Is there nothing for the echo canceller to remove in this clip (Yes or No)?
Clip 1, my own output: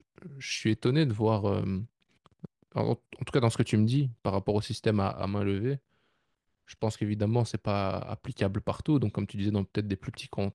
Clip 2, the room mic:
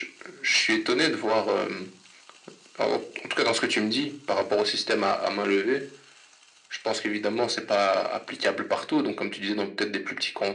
No